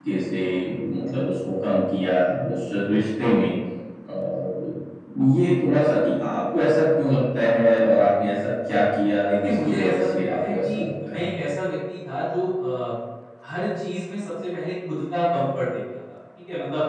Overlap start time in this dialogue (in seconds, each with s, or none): 9.3 s